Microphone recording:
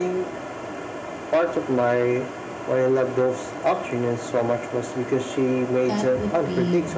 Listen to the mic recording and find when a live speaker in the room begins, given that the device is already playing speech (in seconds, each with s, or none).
5.8 s